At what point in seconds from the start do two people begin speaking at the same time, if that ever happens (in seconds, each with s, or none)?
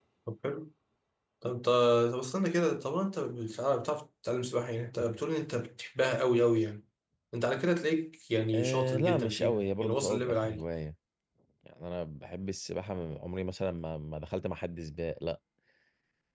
8.5 s